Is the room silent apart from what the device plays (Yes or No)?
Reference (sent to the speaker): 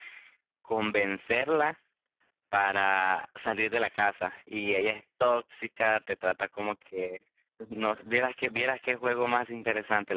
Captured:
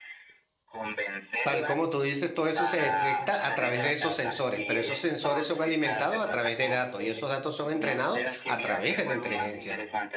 No